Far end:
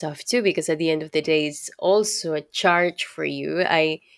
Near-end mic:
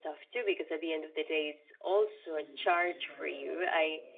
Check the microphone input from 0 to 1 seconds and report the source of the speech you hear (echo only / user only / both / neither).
echo only